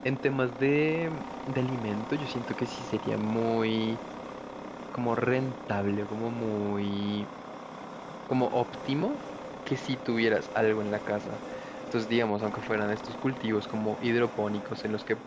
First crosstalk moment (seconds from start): none

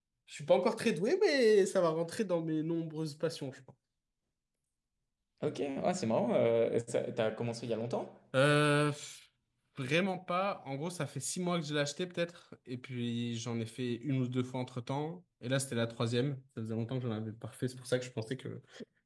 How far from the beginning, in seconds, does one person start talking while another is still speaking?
none

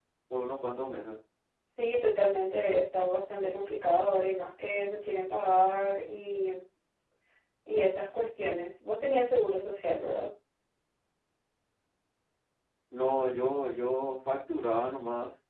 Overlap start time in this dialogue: none

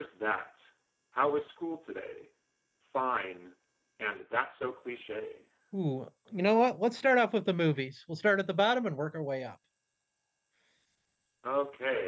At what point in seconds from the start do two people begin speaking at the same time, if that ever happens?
none

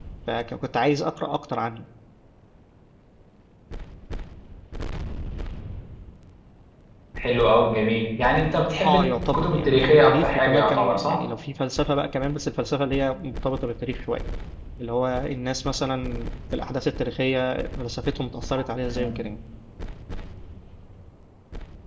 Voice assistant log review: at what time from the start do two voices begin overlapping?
8.8 s

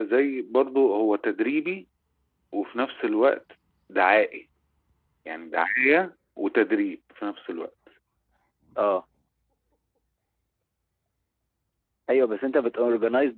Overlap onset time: none

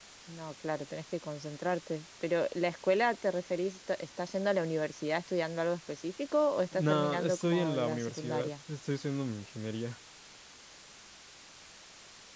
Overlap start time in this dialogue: 6.7 s

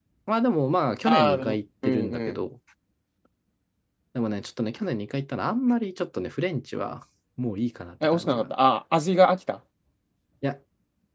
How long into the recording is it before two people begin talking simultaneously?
1.1 s

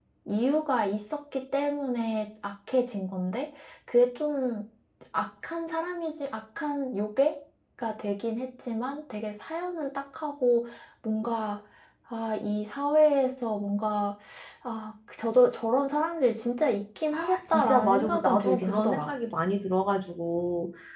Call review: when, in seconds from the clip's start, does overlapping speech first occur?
17.1 s

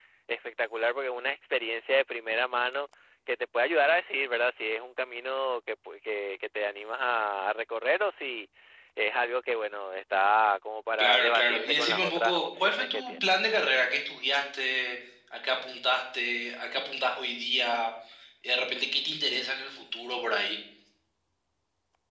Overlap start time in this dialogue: 11.0 s

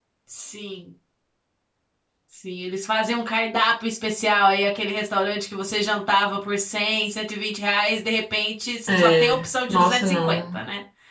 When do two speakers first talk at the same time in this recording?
8.9 s

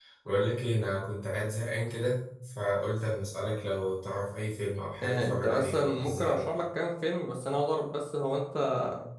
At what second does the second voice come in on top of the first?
5.0 s

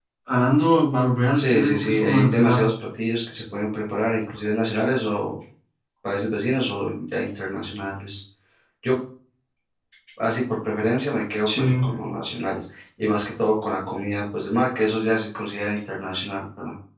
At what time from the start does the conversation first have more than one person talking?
1.4 s

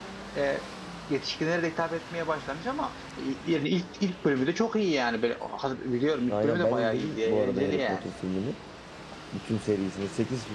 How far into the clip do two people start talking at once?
6.3 s

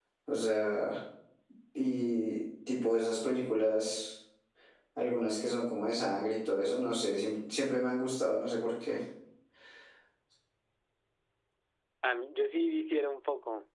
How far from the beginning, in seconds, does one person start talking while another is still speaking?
none

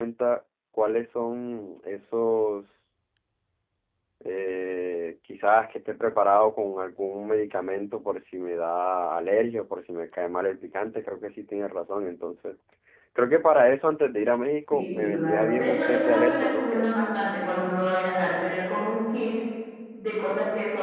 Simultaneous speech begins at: 14.6 s

